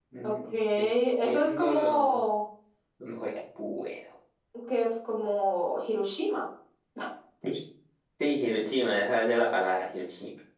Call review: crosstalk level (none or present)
present